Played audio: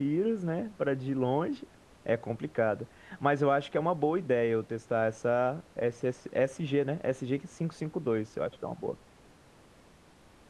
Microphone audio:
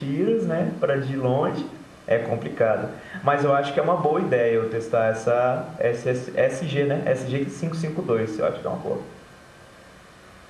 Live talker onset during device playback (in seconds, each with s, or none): none